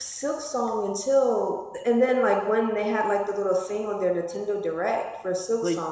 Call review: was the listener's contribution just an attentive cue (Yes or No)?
No